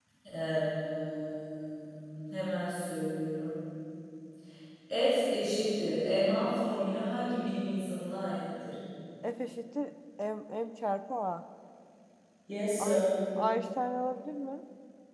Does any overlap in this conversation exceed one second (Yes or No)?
No